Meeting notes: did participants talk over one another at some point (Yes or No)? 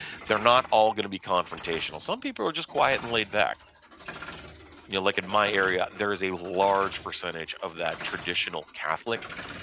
No